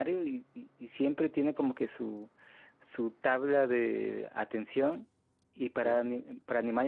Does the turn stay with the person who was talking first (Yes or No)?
Yes